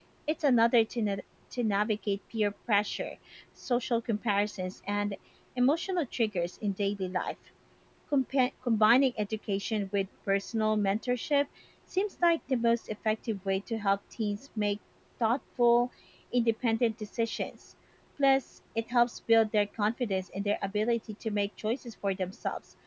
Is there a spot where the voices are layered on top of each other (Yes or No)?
No